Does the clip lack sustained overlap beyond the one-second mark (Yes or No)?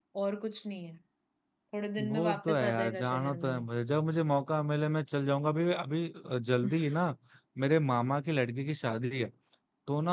No